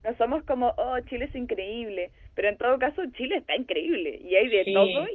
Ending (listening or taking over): listening